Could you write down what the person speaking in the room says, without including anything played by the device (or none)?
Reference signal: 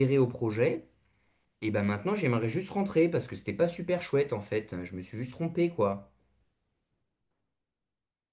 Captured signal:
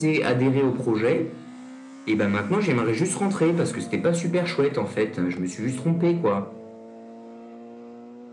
none